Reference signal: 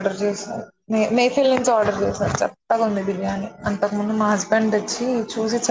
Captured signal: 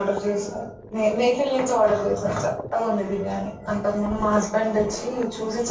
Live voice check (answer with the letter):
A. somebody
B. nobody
B